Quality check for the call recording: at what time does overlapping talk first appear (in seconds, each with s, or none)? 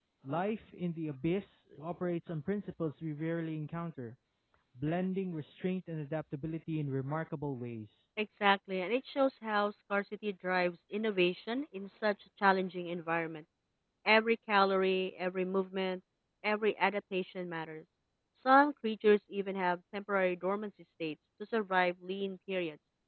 none